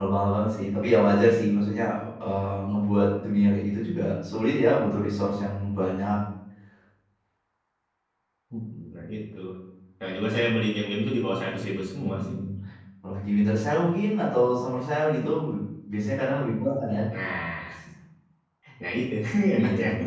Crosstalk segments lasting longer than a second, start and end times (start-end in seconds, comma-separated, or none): none